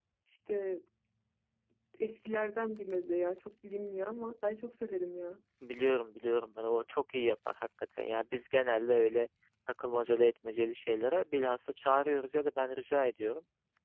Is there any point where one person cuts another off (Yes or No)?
No